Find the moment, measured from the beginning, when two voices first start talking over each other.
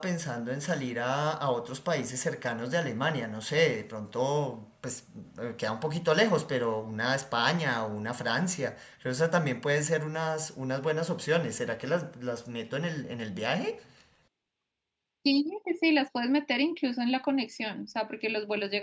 none

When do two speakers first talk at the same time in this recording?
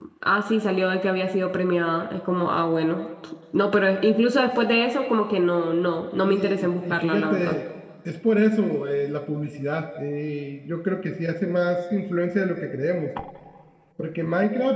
6 s

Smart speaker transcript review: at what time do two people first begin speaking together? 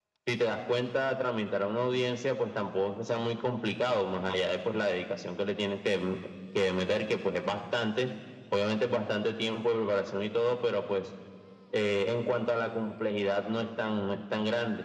none

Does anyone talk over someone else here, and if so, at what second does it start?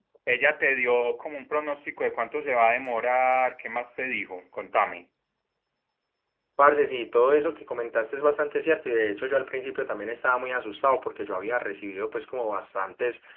none

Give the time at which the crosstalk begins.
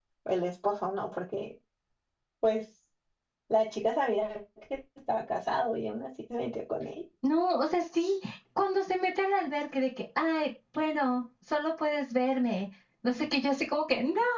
none

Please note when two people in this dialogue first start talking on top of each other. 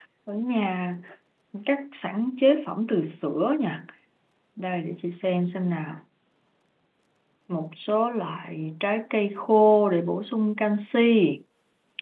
none

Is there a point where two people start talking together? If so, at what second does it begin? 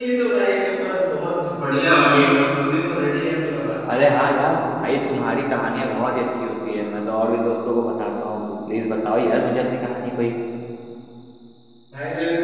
none

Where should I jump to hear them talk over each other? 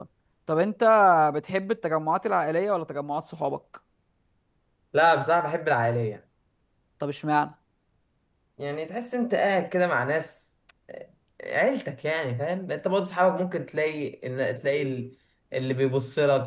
none

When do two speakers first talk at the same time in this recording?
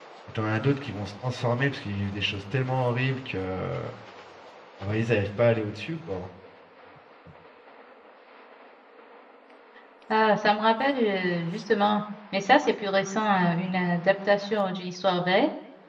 none

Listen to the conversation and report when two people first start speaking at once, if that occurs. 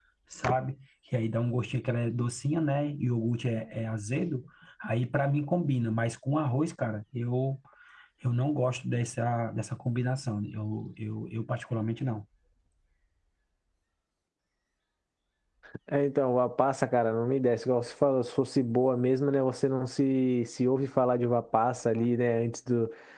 none

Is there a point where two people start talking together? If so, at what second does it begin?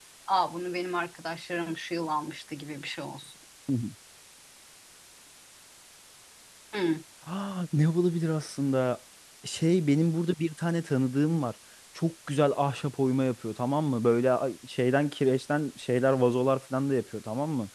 none

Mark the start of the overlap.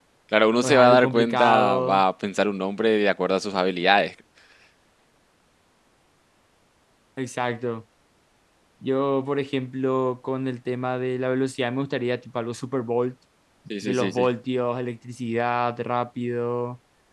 1 s

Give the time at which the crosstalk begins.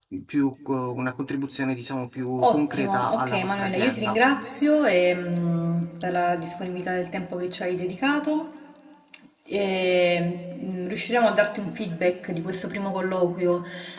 2 s

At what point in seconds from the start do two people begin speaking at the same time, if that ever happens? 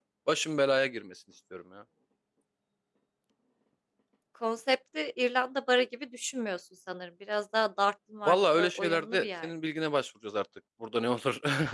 8 s

